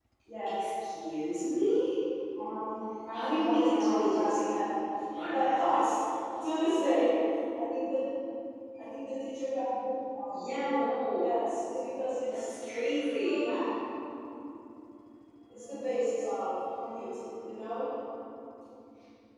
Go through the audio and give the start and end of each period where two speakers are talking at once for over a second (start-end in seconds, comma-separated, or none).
3.1-4.6